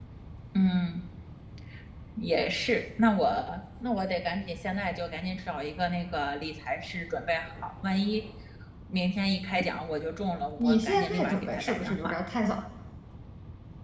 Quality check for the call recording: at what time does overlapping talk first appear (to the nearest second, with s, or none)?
11 s